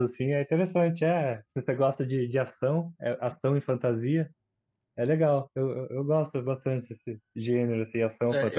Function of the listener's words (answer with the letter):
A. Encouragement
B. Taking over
B